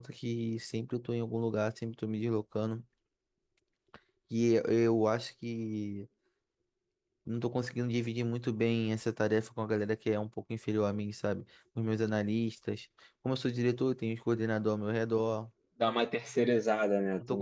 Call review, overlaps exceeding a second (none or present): none